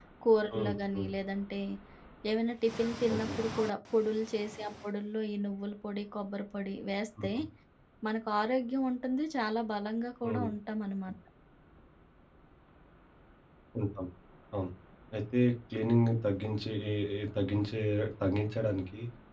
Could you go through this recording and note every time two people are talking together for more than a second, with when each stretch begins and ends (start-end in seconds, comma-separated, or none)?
none